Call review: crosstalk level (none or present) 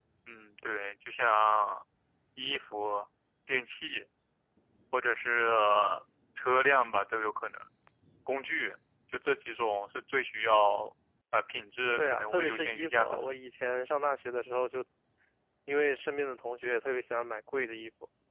present